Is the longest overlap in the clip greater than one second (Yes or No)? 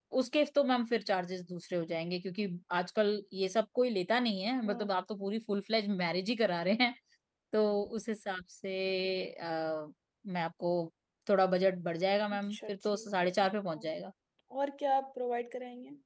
Yes